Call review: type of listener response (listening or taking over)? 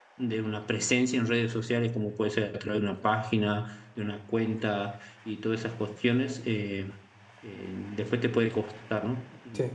listening